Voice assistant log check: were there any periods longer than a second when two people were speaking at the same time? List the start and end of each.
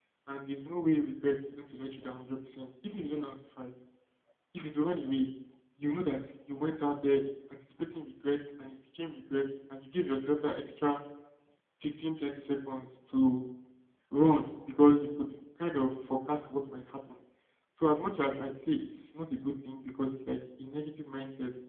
none

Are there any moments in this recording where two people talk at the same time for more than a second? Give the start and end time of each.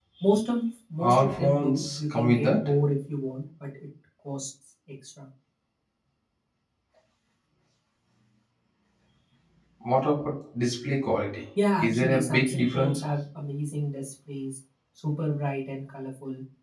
1.0-2.7, 11.8-13.0

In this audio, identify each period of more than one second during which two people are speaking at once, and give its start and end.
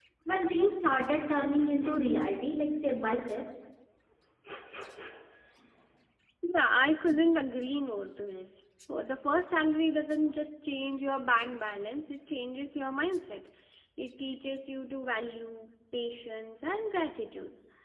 none

